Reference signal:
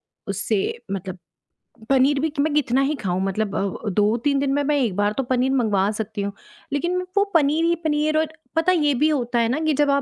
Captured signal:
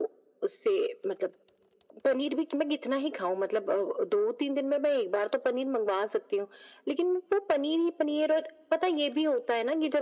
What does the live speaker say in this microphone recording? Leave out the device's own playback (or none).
none